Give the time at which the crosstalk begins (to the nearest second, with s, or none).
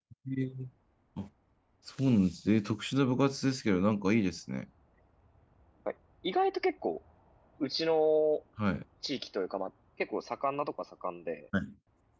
none